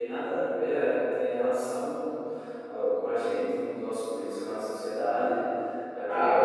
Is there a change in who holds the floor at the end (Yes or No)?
Yes